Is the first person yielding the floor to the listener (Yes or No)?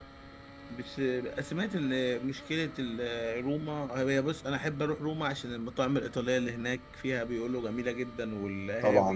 Yes